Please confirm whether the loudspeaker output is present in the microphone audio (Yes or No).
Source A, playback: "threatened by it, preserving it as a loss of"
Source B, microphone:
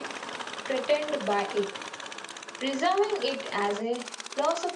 Yes